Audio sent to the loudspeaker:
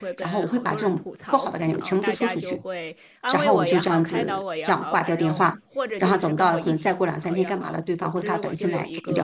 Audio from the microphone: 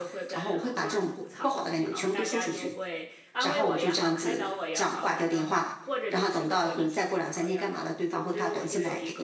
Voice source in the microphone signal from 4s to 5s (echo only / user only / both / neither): echo only